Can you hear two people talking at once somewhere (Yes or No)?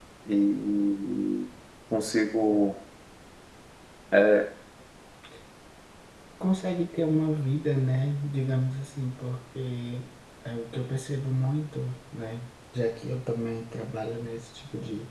No